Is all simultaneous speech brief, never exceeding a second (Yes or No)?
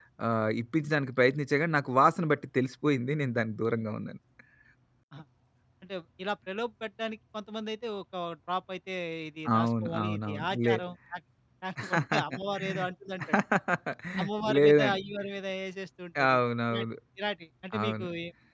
No